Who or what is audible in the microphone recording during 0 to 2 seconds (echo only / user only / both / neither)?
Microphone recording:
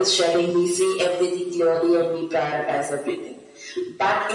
echo only